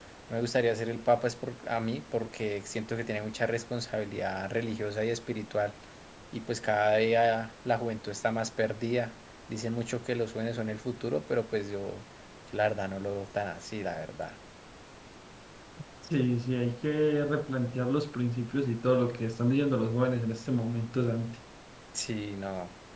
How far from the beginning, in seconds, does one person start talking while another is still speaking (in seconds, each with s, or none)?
none